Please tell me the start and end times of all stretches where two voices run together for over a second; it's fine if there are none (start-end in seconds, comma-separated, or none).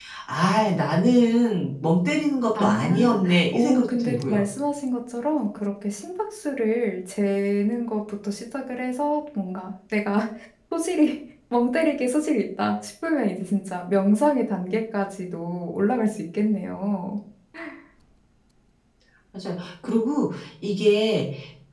2.6-4.4